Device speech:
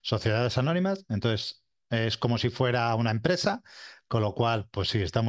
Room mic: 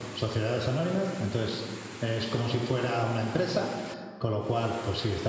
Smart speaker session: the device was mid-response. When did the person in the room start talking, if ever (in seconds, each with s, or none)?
none